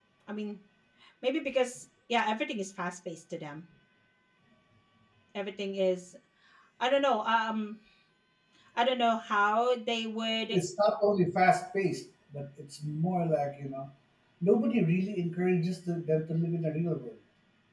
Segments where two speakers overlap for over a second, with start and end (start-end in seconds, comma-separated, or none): none